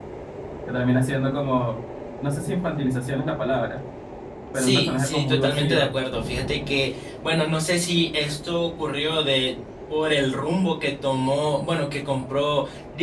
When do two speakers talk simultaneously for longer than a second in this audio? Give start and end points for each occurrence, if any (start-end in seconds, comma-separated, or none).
4.5-5.9